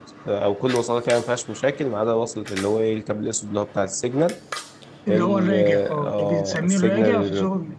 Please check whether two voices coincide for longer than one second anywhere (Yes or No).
Yes